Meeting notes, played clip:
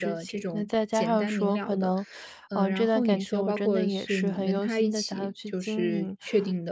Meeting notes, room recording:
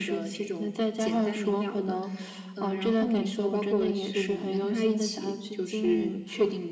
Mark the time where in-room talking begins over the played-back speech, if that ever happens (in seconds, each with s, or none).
none